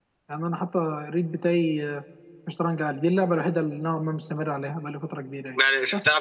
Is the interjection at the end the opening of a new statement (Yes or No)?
Yes